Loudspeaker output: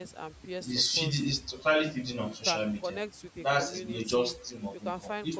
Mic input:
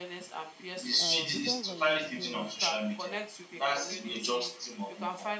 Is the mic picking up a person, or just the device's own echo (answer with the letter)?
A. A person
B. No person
A